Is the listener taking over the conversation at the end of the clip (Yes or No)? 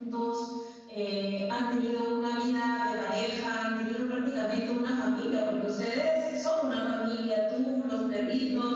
No